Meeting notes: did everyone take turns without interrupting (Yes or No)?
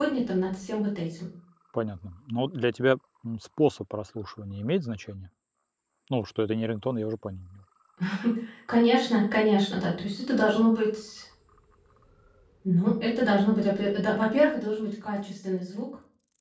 Yes